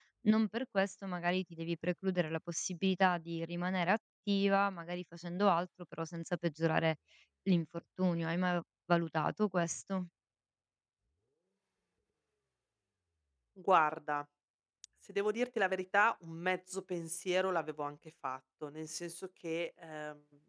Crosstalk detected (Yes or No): No